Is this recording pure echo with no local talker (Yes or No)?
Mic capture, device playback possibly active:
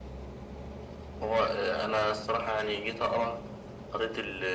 Yes